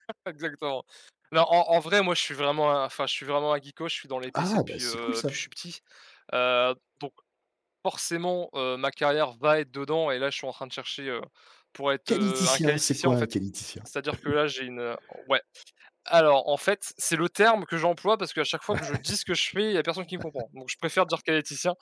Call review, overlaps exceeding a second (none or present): present